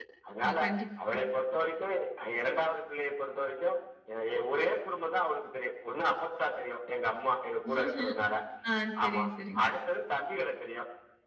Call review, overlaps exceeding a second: none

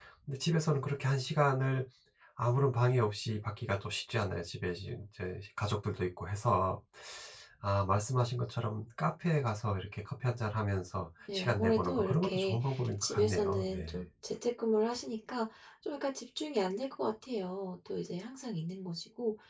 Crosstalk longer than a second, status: present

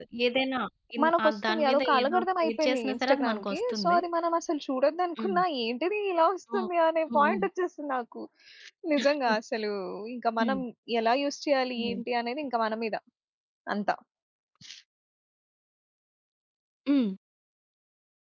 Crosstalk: present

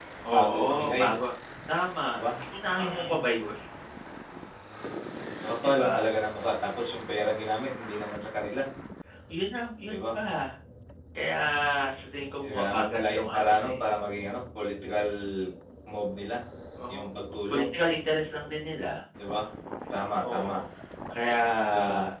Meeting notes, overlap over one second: present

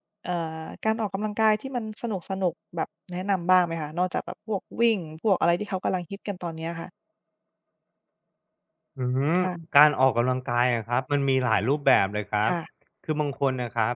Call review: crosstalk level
none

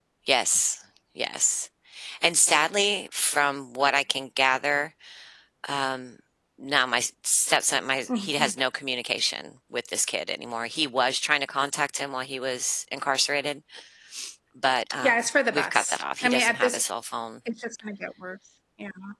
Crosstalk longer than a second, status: present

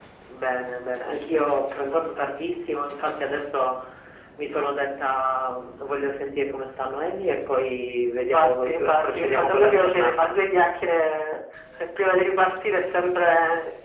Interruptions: present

